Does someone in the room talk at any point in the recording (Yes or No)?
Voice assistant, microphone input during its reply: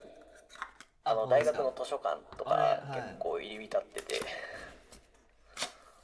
Yes